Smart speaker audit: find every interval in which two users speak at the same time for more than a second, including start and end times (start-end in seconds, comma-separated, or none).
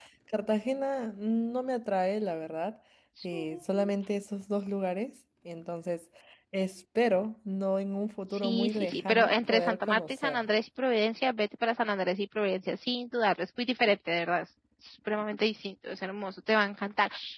8.3-10.4